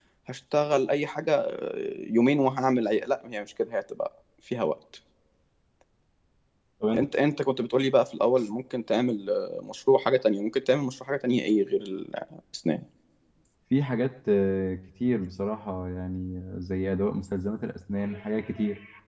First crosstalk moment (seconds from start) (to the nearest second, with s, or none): none